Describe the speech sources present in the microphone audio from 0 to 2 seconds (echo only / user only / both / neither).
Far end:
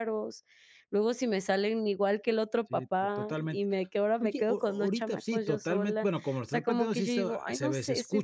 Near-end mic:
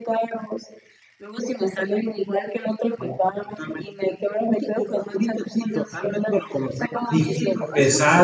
echo only